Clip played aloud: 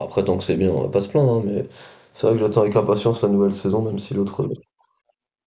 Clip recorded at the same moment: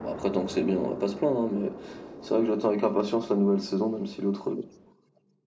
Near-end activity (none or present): none